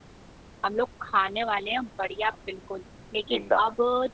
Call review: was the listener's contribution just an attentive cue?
Yes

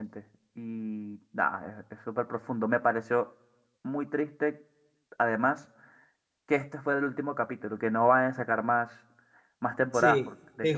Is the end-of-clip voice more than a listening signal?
Yes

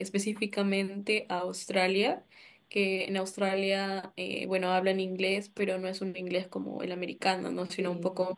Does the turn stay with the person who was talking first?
Yes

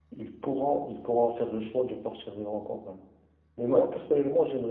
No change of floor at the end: Yes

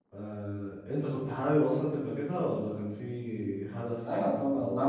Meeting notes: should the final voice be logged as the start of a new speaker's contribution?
Yes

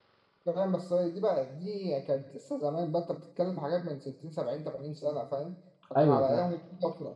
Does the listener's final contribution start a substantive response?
No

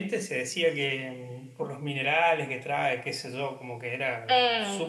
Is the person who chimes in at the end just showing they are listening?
No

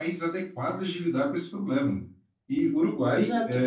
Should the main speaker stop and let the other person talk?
No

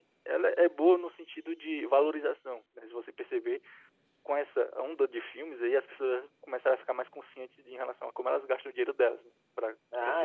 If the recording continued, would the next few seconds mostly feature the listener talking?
No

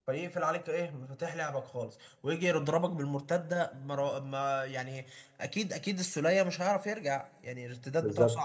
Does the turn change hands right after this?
No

